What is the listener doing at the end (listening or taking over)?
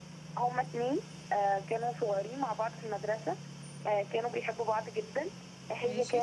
listening